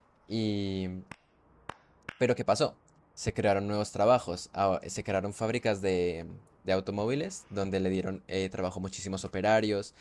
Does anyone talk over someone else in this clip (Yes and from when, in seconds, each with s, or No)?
No